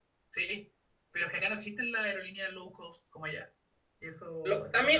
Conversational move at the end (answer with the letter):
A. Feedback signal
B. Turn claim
B